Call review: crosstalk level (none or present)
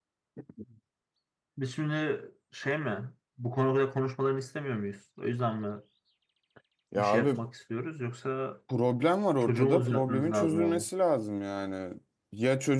present